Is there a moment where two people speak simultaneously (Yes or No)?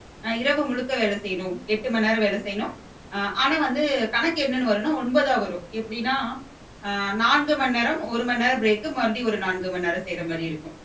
No